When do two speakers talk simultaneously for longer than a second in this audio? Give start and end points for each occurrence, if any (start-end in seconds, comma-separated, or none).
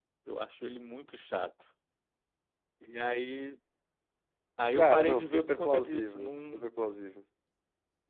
4.7-6.7